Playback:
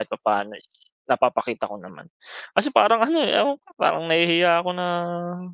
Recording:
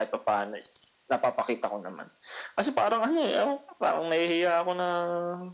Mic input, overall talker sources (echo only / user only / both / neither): echo only